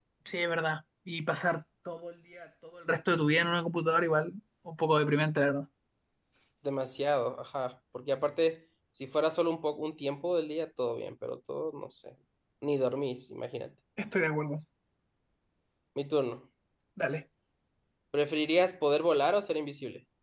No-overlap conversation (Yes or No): Yes